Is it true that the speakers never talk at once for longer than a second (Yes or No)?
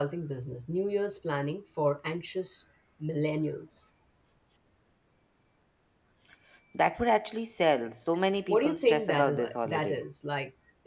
No